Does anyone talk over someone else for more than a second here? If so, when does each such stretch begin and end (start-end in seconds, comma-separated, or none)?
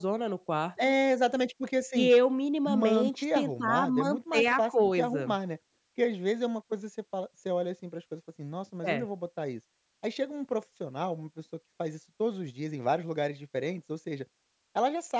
2.7-5.3